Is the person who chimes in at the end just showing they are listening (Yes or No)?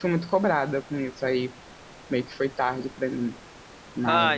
No